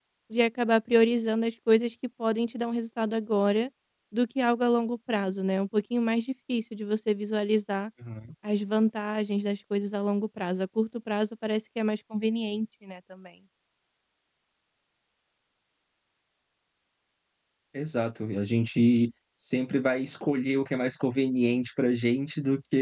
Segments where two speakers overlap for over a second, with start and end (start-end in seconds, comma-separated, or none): none